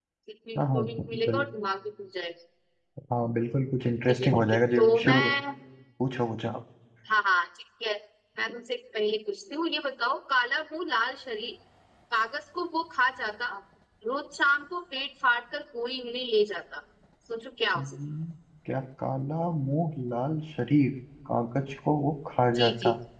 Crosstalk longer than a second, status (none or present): present